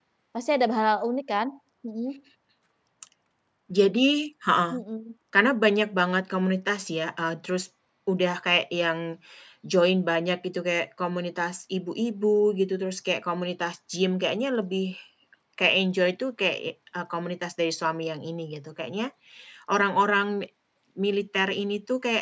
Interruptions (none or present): none